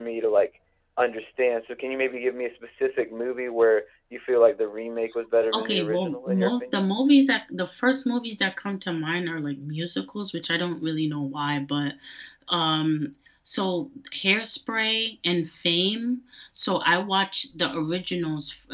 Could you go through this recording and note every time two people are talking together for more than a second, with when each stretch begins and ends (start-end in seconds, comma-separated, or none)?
5.5-6.8